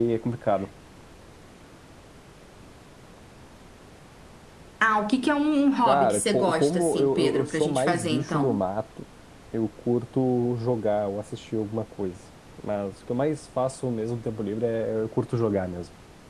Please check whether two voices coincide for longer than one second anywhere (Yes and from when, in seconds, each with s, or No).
Yes, from 5.8 s